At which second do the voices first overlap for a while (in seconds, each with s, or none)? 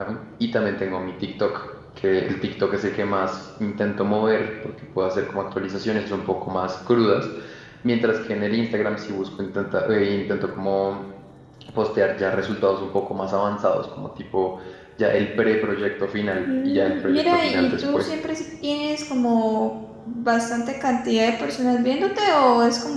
16.4 s